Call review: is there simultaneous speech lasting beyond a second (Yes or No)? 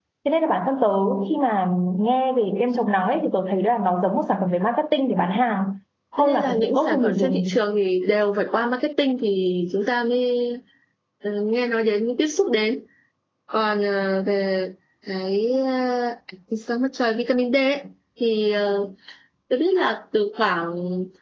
Yes